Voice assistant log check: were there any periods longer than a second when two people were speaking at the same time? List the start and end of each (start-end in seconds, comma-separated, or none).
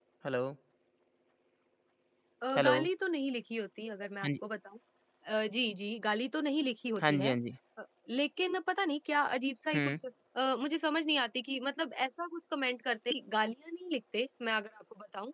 none